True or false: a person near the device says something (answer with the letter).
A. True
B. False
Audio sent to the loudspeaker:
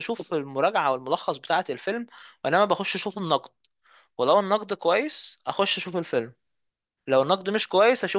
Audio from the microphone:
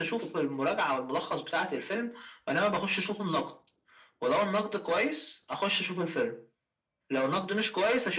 B